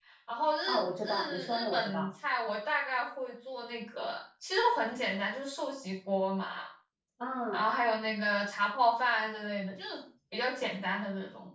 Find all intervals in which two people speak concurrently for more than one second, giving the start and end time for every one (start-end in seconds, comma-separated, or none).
0.7-2.1